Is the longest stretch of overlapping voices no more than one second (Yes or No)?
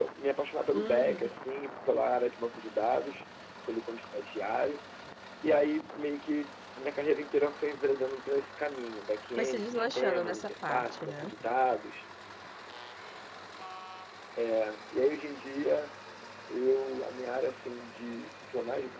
No